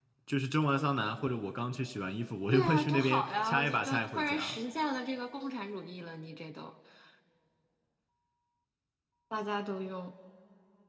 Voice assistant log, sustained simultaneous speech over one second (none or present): present